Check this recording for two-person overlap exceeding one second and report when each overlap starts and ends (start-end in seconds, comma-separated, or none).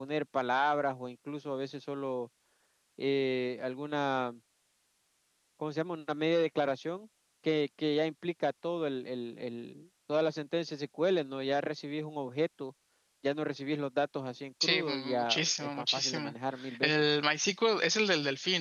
14.6-16.3